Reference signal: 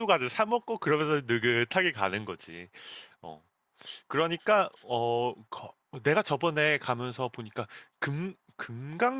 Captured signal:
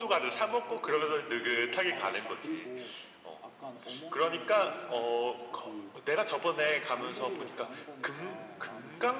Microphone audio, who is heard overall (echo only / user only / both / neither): both